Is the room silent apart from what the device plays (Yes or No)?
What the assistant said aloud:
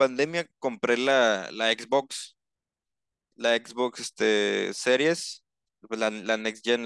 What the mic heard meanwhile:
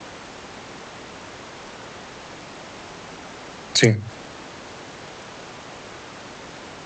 No